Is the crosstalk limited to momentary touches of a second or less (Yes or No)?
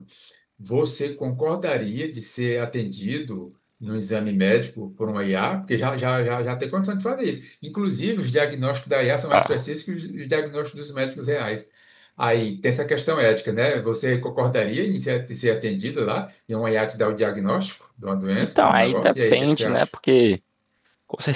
No